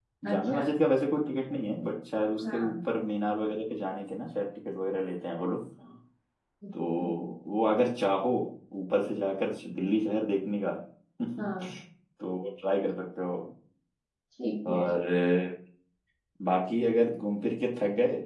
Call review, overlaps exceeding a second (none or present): none